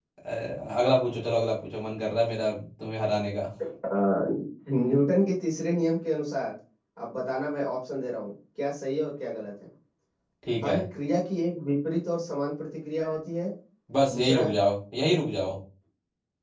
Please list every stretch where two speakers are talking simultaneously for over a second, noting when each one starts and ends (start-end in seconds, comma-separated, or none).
none